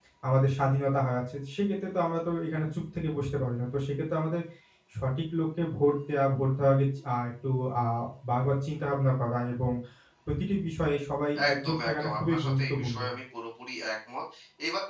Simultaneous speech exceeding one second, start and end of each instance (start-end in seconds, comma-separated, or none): 11.5-13.0